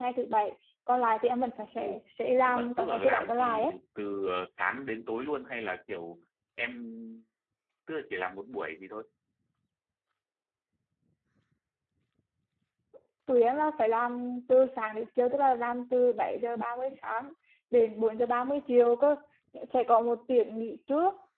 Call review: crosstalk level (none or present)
present